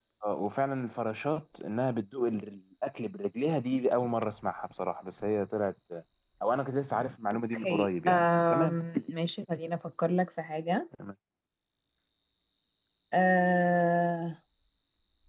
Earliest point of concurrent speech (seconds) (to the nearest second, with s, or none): 8 s